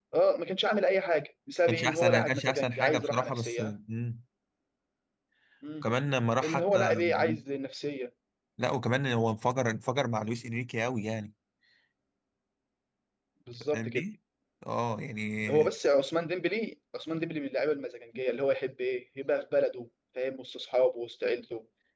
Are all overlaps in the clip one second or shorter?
No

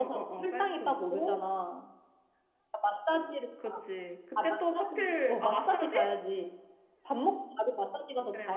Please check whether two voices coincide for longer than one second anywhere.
Yes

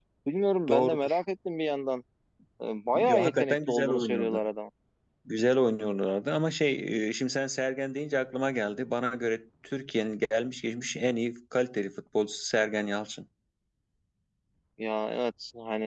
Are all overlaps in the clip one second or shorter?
No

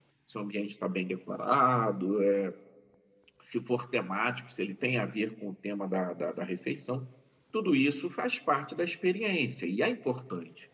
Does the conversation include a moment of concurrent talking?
No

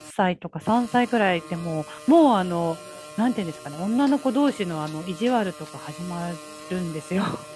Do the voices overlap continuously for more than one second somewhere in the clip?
No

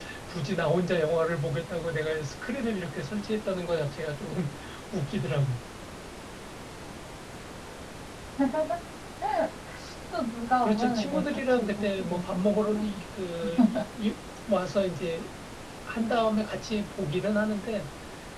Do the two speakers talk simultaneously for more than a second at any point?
Yes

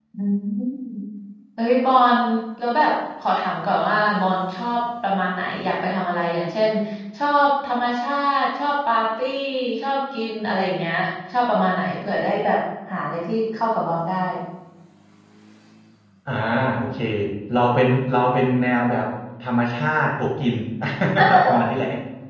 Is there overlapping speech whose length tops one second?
No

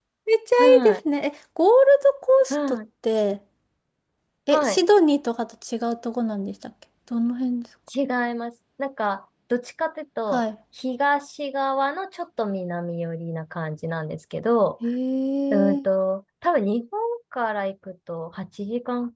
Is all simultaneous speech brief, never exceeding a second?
Yes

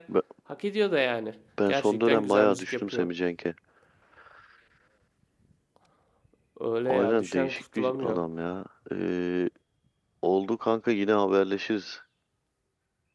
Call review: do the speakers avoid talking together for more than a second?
No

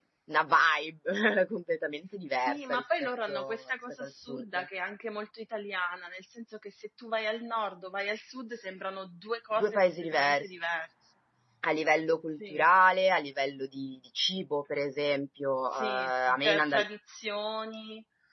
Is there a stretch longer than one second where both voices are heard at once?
Yes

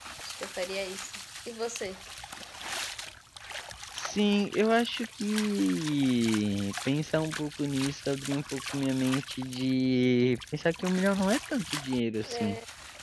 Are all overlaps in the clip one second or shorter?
Yes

